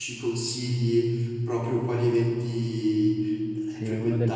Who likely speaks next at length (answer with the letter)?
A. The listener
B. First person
A